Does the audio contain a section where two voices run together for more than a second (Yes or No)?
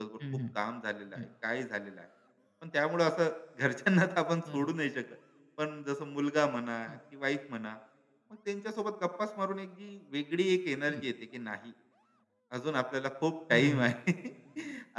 No